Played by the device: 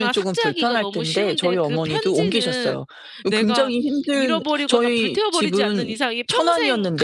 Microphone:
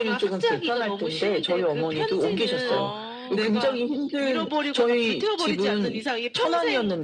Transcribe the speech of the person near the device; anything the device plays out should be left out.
어.

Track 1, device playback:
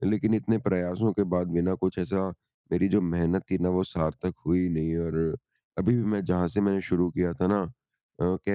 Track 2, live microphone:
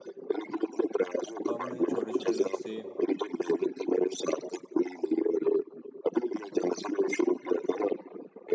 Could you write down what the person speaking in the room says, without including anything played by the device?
तो आप मतलब ये छोटे-छोटे लक्ष्य

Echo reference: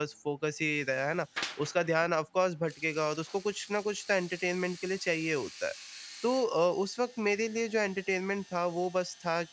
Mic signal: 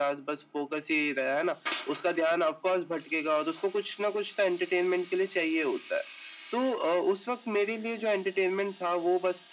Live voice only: none

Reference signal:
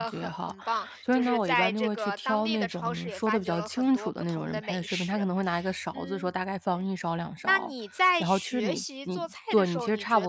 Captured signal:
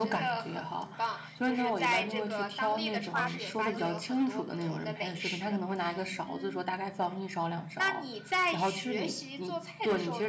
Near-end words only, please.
对，花的时间很长，对，

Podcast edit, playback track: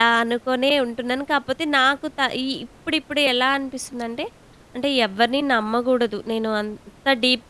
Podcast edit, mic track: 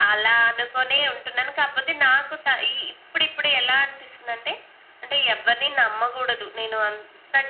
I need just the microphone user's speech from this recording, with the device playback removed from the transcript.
none

